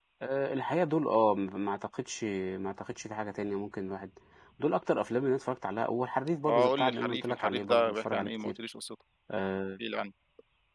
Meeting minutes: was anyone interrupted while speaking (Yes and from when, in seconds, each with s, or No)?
Yes, from 6.5 s